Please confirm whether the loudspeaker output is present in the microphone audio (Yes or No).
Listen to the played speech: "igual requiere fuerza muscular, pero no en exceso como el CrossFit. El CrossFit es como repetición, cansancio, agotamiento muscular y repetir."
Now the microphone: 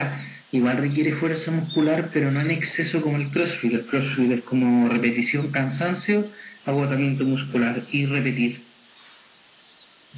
Yes